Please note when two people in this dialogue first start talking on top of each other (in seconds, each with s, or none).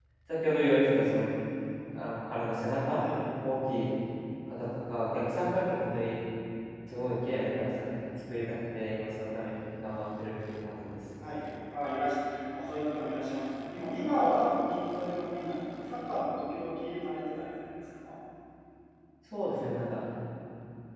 none